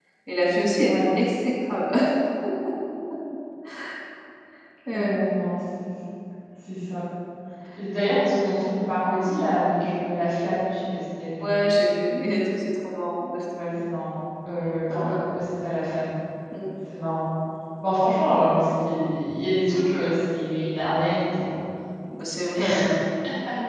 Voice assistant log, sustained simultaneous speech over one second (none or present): none